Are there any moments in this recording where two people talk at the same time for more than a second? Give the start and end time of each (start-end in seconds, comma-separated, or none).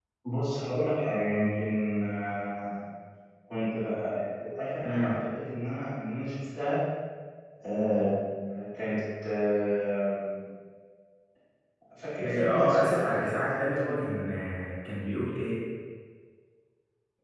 12.2-14.1